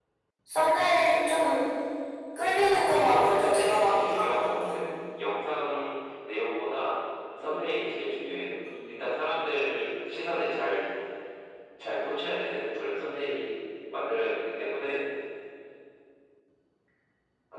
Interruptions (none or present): present